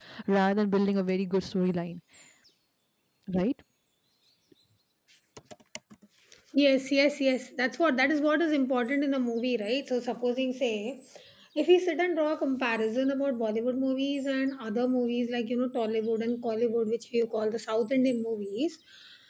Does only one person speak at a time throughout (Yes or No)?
Yes